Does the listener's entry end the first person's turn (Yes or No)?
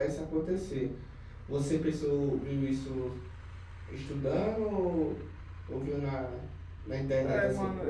Yes